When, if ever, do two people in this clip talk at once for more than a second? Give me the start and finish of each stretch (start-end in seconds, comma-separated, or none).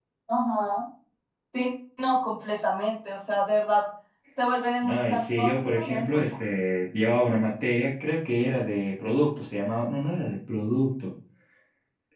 4.8-6.3